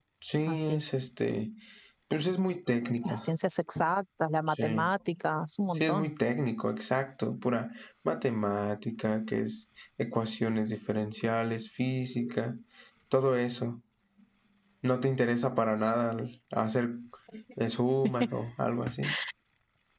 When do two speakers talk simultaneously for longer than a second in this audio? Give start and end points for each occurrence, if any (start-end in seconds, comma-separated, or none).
none